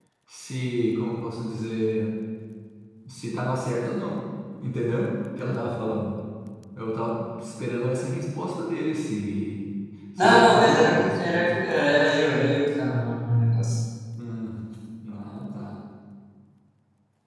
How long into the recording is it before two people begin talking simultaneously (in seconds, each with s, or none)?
10.2 s